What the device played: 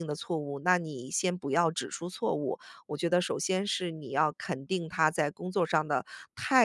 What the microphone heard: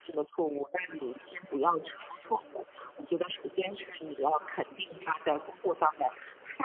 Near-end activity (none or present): none